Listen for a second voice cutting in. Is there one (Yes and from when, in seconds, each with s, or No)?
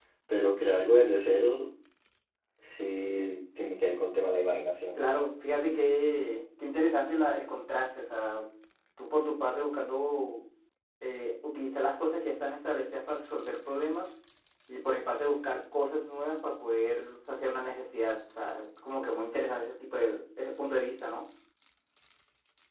No